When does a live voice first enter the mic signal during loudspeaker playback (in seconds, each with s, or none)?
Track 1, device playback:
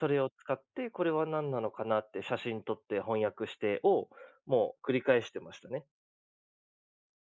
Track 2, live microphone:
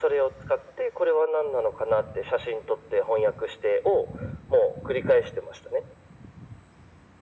none